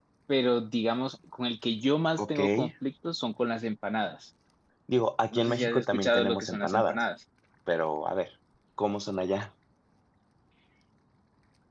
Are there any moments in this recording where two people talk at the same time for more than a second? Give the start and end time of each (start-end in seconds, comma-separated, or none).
5.3-7.0